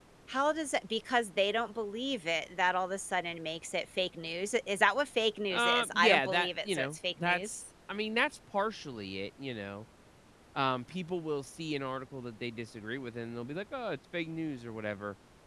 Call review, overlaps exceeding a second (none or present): present